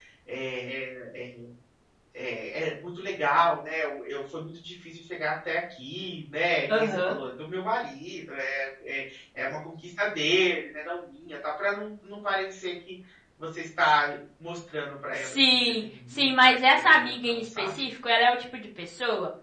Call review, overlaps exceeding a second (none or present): present